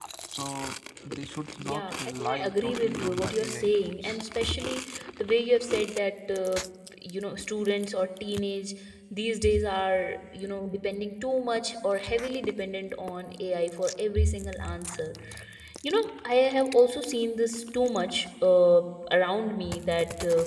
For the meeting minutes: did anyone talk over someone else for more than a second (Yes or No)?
Yes